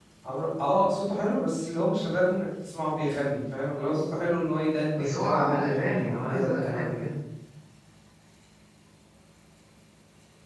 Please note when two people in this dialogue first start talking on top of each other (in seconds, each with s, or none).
5.0 s